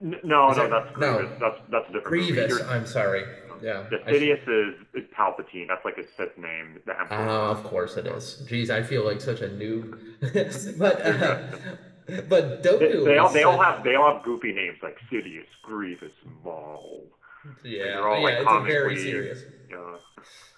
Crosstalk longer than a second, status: present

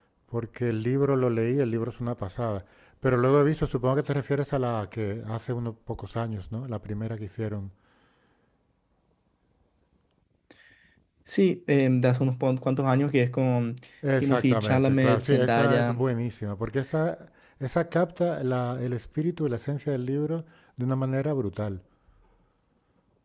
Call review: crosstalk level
present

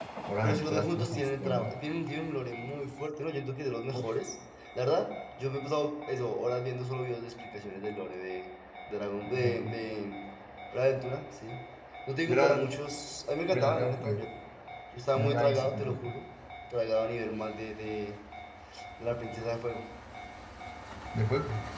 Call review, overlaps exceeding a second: present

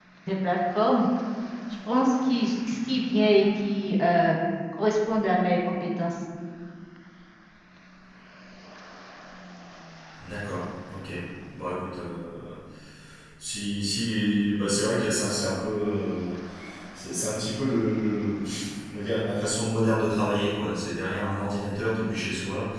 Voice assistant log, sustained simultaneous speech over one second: none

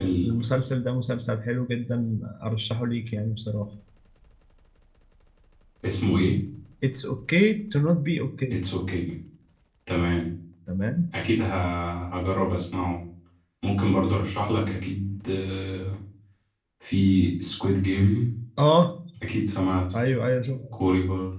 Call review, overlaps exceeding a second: none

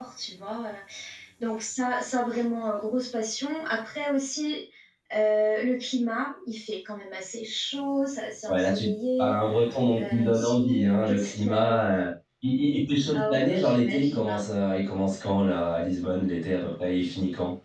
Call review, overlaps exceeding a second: present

